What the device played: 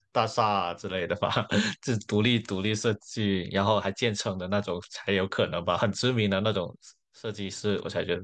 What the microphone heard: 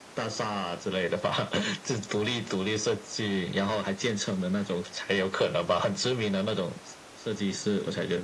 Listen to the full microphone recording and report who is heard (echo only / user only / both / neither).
echo only